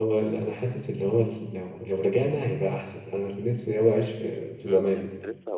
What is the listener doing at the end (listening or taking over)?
taking over